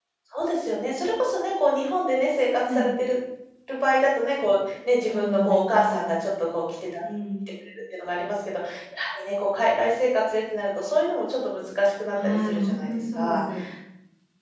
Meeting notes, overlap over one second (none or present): present